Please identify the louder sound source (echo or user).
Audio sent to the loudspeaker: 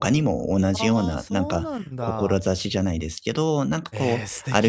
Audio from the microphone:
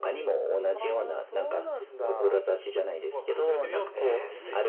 echo